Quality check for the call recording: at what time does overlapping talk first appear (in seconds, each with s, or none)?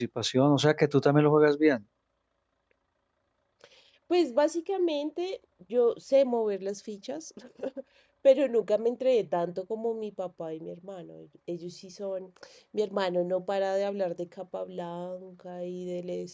none